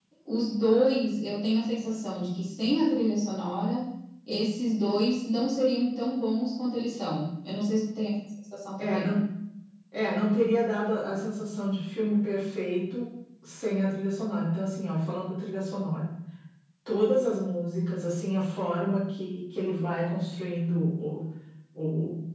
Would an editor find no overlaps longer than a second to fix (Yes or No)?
Yes